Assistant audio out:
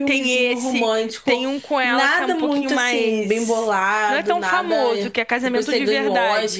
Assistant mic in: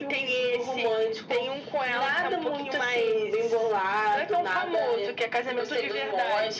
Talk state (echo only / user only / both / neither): echo only